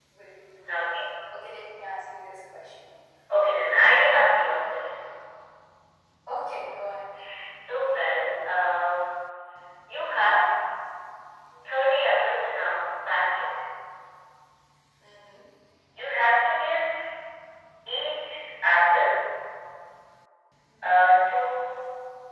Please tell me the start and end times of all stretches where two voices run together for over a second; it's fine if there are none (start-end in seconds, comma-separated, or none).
none